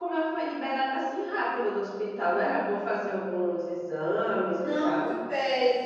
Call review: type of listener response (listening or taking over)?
taking over